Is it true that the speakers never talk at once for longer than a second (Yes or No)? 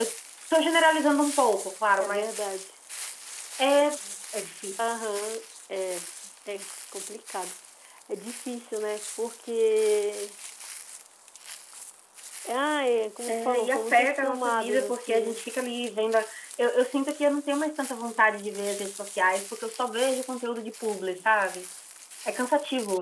No